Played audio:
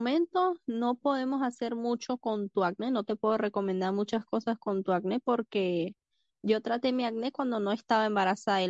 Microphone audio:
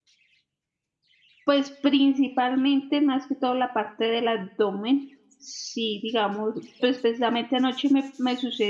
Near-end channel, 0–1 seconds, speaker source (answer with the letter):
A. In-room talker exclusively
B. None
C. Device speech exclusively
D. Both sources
B